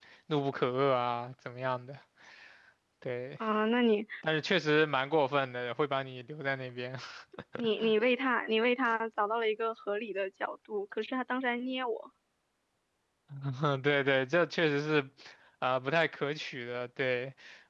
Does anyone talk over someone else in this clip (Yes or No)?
No